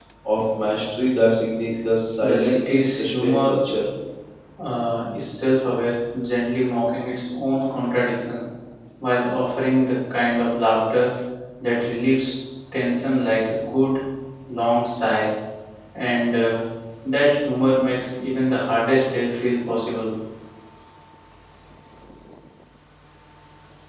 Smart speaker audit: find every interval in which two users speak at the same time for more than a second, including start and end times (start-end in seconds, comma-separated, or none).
2.2-3.6